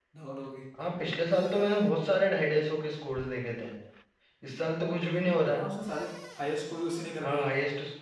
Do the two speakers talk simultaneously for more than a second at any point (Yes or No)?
No